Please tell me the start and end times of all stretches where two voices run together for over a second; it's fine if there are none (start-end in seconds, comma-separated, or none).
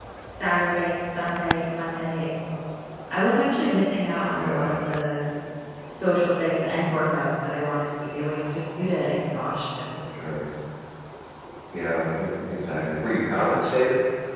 none